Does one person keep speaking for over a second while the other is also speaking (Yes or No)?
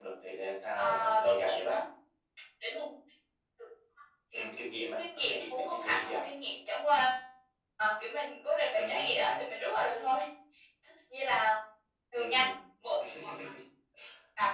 Yes